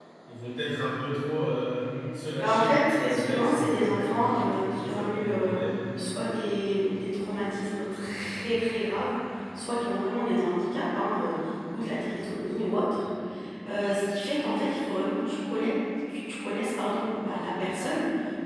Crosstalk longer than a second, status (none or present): present